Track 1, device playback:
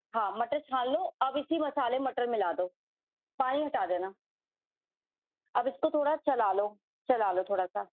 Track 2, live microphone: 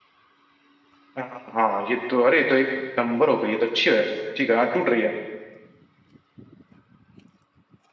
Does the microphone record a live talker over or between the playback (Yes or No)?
Yes